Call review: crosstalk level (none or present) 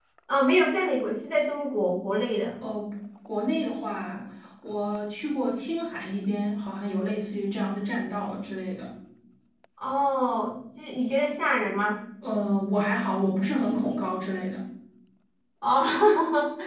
none